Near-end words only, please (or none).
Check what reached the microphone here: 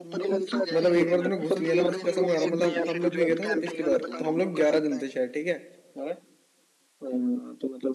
मतलब एक बार तूने घुस लिया ना मैं कसम खा रहा हूँ मतलब हम लोग भी गए थे ना जब पिछली बार तो हम लोग ग्यारह जन थे शायद ठीक है